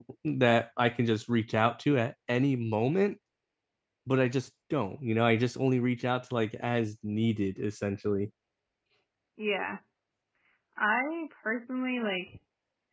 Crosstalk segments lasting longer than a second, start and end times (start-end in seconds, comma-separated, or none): none